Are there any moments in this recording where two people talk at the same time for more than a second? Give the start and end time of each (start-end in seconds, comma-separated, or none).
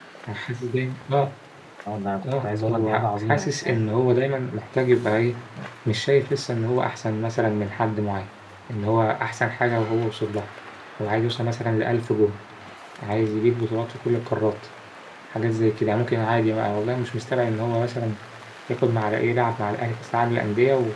2.4-3.8